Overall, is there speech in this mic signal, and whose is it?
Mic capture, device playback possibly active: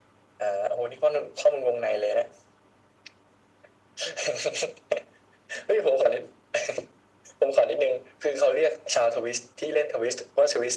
echo only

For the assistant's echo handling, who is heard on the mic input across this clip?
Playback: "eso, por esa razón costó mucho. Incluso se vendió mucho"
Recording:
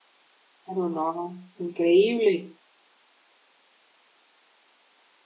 user only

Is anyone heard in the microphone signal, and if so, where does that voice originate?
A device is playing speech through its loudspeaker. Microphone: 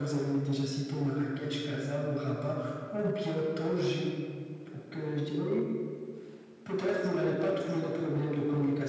echo only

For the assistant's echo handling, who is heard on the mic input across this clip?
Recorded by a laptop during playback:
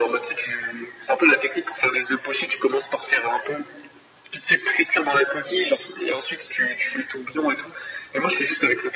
echo only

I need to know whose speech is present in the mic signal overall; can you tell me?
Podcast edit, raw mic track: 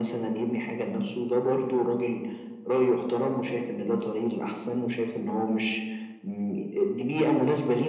echo only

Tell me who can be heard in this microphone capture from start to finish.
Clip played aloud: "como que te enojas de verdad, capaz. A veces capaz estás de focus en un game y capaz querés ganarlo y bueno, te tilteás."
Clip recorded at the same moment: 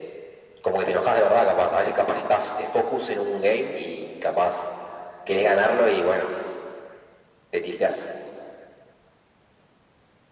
echo only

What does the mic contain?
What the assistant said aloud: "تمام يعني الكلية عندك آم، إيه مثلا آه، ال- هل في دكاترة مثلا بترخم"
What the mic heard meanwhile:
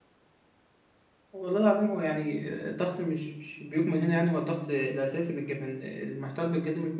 user only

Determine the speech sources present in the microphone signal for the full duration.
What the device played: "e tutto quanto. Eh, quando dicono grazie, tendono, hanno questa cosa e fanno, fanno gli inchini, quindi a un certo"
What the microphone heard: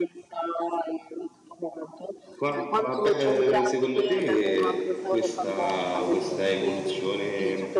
both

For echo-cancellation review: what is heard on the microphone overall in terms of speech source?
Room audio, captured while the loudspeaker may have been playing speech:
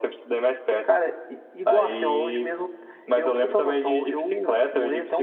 echo only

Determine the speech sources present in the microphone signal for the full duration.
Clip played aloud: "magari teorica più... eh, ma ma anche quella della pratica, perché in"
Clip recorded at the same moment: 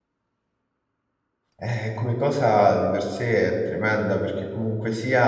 user only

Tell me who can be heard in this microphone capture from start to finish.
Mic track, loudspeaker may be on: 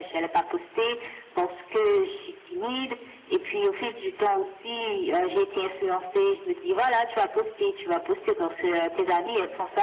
echo only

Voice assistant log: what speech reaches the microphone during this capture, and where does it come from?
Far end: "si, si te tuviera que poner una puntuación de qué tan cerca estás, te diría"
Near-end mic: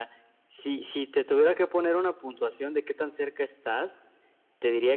echo only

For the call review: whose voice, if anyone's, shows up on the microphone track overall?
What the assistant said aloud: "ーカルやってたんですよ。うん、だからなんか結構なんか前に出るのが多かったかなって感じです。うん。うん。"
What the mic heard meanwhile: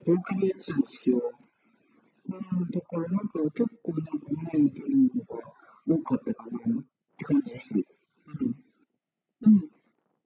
echo only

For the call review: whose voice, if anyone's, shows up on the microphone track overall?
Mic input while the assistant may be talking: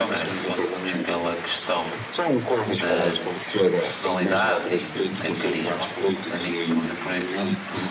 both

